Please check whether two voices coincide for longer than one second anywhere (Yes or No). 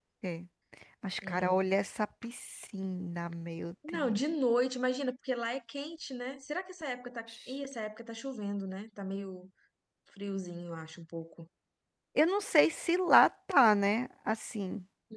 No